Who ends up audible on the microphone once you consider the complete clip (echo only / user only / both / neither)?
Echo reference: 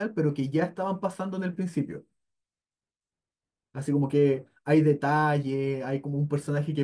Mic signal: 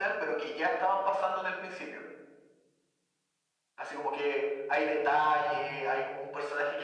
echo only